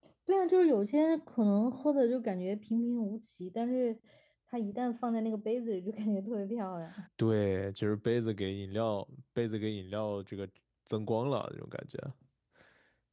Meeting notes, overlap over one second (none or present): none